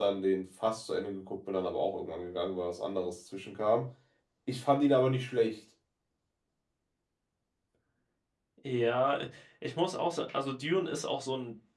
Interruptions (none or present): none